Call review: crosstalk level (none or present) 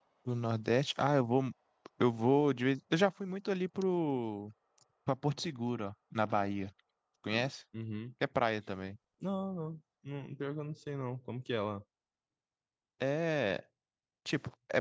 none